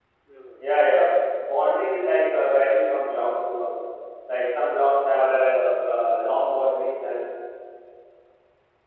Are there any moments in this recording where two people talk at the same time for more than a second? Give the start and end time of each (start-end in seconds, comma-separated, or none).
4.9-7.3